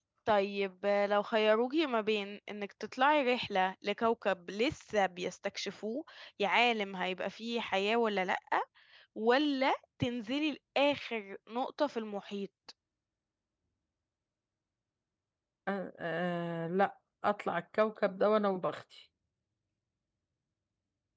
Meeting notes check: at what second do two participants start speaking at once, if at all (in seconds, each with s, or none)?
none